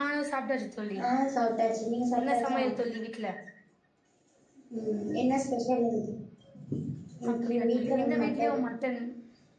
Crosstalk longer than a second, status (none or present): present